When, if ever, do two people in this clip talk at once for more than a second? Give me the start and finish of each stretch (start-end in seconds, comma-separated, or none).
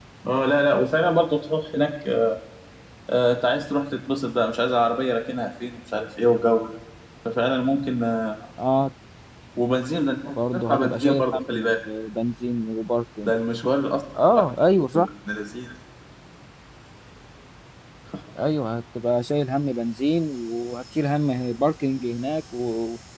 10.2-11.7